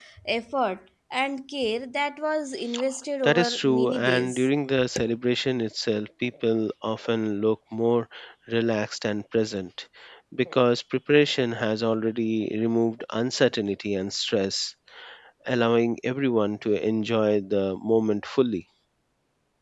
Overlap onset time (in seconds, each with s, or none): 3.2 s